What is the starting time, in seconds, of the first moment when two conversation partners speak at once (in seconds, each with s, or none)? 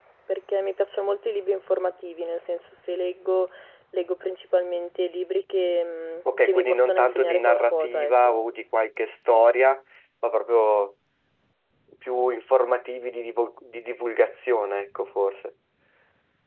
6.2 s